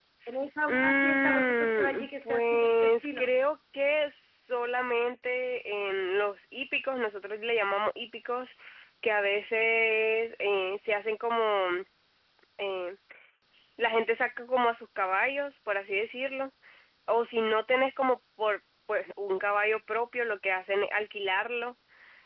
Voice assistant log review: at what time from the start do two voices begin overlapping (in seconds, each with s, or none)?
0.7 s